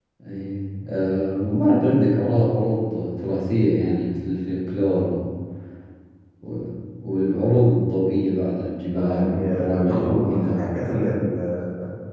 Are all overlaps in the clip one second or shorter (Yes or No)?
No